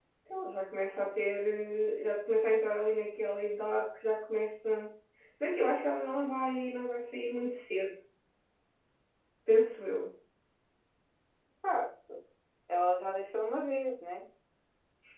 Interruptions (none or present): none